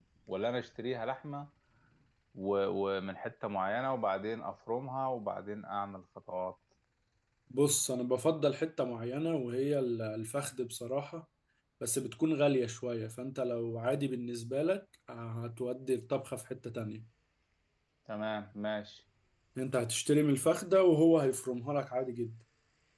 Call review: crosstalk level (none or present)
none